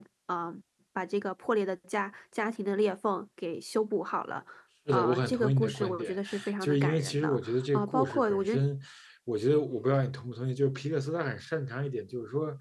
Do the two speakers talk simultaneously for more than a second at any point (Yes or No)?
Yes